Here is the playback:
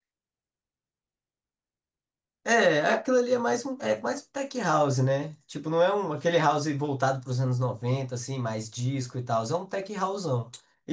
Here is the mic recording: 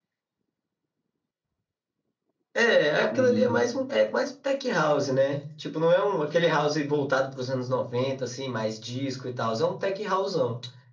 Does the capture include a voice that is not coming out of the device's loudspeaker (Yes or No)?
Yes